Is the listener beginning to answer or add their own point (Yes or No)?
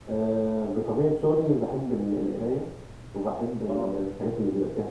No